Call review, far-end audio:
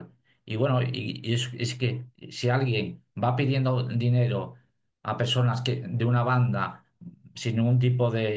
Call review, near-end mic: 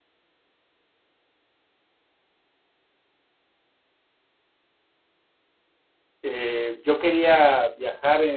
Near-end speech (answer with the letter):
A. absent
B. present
B